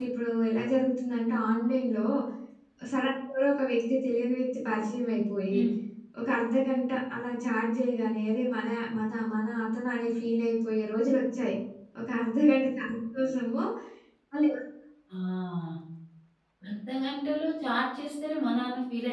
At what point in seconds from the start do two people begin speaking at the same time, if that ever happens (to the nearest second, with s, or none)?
none